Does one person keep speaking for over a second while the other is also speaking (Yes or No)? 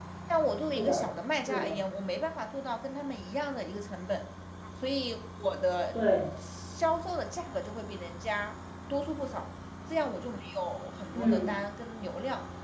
No